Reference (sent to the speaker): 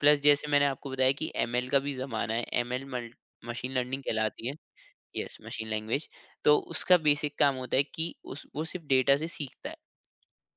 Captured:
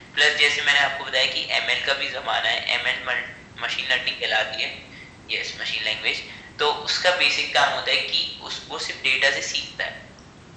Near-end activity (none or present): none